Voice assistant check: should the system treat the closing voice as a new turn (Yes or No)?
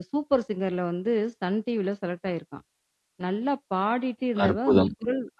No